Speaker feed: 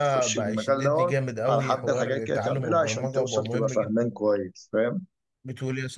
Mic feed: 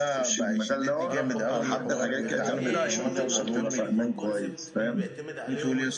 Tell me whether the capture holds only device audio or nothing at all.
No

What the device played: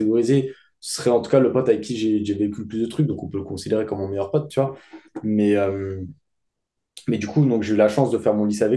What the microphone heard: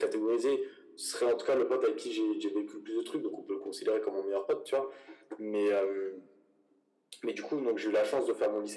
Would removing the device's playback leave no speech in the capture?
Yes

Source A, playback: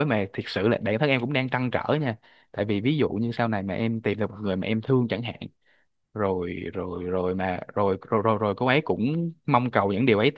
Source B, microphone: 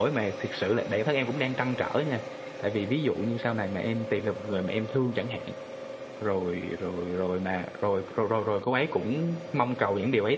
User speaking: No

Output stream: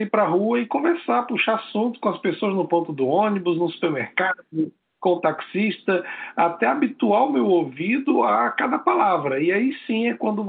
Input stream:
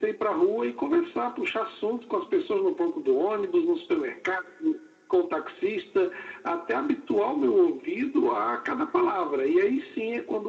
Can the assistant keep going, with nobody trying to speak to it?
Yes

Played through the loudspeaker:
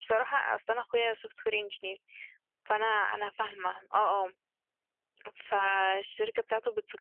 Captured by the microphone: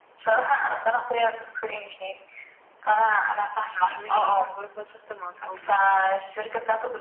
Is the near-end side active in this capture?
Yes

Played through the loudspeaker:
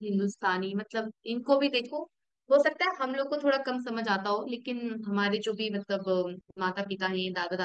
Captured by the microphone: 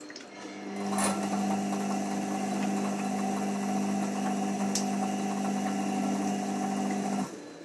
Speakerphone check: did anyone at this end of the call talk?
No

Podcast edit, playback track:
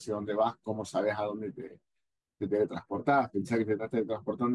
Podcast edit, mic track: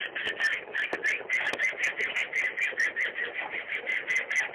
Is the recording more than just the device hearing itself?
No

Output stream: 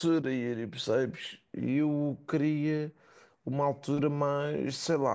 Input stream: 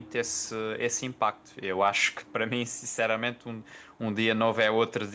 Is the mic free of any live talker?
No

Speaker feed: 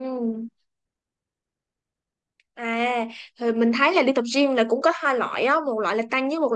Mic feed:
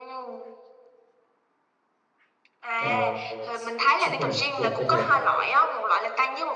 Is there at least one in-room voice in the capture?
Yes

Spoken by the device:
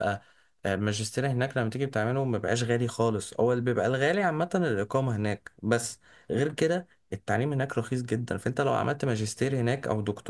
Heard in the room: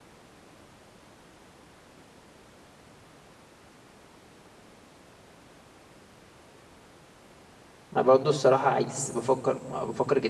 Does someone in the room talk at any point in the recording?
Yes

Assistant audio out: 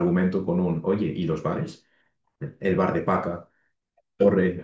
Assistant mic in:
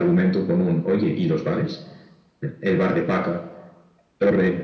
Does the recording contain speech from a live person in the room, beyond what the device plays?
No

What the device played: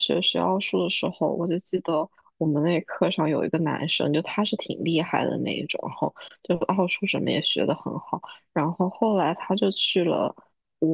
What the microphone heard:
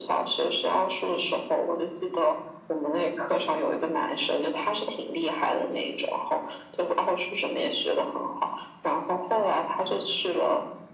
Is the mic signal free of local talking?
Yes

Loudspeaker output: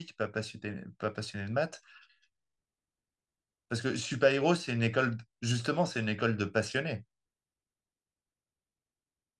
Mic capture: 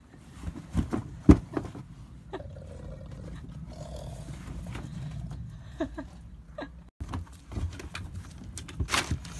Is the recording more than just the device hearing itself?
No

